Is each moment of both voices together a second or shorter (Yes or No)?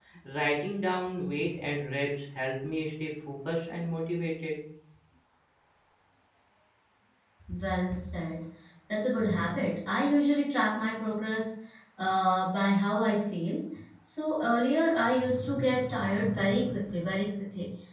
Yes